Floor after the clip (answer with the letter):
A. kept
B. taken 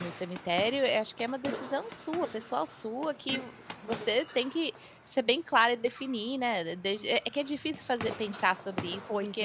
A